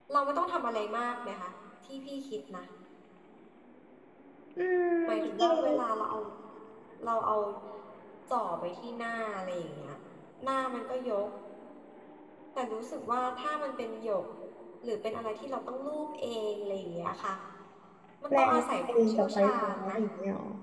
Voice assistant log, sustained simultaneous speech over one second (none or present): present